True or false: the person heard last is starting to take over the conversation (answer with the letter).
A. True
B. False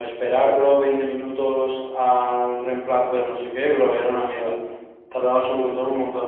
B